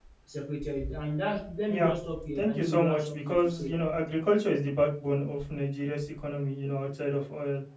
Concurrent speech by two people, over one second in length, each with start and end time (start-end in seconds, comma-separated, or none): 2.4-3.7